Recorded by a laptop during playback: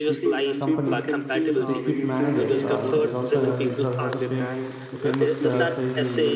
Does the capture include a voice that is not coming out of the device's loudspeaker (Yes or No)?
Yes